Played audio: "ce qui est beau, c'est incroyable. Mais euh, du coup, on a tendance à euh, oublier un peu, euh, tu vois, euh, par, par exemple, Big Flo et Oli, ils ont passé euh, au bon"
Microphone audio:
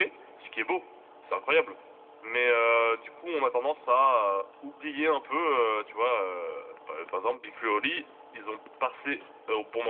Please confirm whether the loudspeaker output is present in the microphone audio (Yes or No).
Yes